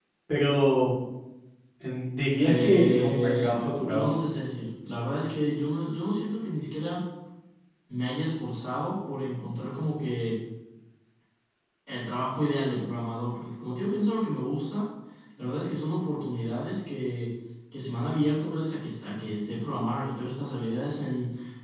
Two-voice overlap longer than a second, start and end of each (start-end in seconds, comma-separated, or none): 2.4-4.1